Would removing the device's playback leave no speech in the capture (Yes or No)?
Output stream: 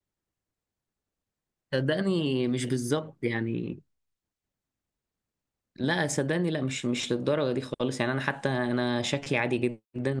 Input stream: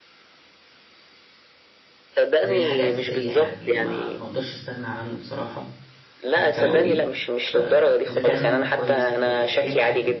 No